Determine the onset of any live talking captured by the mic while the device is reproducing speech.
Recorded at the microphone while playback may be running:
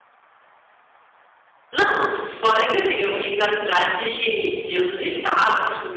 1.7 s

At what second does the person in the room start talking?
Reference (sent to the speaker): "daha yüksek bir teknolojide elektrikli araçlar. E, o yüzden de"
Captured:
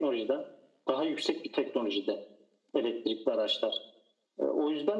none

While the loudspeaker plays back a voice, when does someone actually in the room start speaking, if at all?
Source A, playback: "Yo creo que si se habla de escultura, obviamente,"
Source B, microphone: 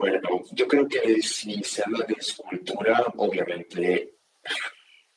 none

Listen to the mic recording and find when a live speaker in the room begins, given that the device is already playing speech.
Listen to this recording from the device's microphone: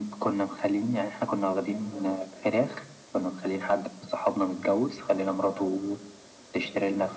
none

